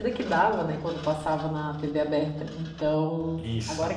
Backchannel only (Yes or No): Yes